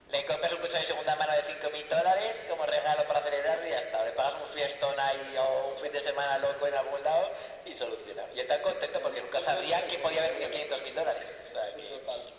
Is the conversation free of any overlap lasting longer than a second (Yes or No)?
No